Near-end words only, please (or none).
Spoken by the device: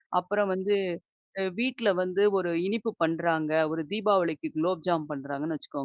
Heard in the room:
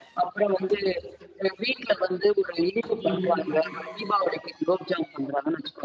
ம்.